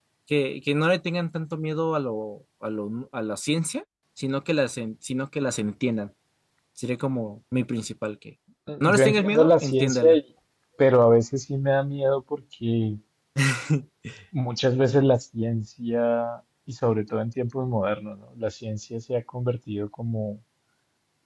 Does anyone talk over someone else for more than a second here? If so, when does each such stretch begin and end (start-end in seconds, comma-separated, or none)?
8.8-10.2